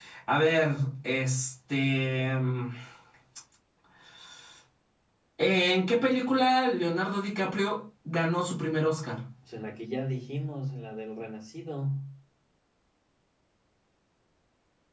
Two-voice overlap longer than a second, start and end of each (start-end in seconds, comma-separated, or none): none